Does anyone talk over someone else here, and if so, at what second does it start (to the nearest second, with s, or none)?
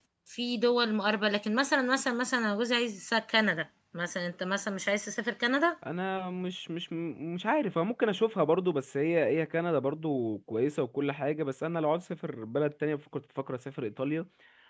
none